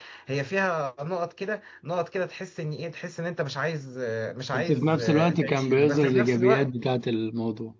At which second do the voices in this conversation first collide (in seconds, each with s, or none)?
4.5 s